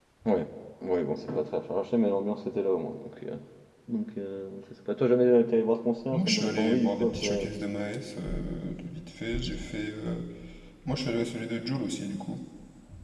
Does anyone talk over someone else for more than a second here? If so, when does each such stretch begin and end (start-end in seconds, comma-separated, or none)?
6.1-7.5